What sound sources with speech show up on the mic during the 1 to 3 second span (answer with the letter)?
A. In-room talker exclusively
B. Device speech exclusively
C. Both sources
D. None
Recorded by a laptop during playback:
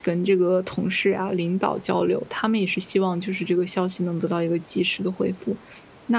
A